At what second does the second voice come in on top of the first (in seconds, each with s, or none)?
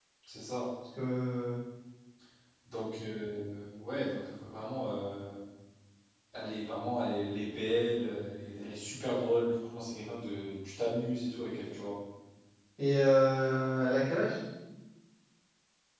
none